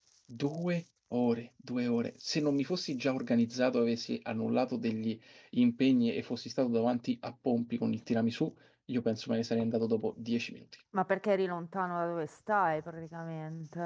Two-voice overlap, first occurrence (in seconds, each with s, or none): none